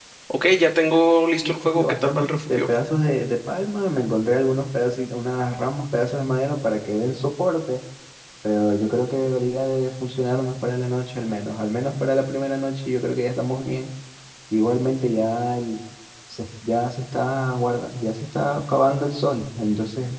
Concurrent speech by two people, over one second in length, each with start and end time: 1.4-2.7

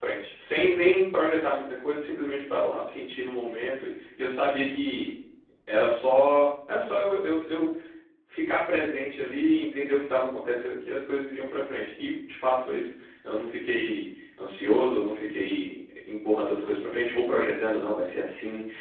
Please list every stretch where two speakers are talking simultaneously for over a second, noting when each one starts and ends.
none

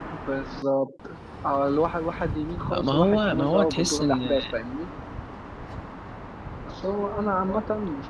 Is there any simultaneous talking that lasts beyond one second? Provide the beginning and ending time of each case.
2.7-4.4

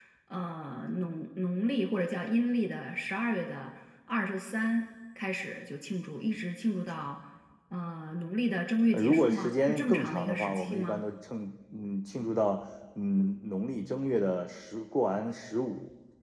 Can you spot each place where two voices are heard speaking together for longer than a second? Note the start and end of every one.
8.9-11.0

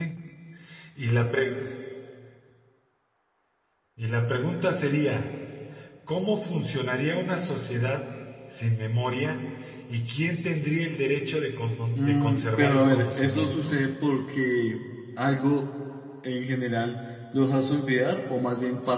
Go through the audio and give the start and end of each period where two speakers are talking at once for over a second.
11.9-13.5

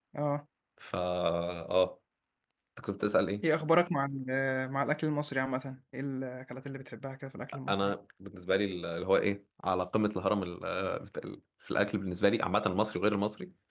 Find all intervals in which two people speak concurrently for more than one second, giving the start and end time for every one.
none

